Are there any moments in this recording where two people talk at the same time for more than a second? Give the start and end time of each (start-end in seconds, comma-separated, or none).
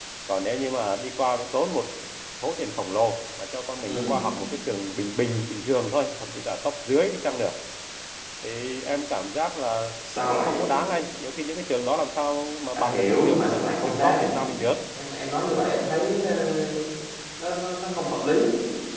12.8-14.4